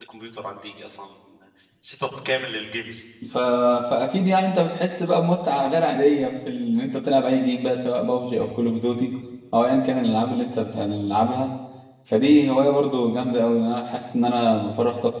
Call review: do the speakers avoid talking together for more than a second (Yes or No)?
Yes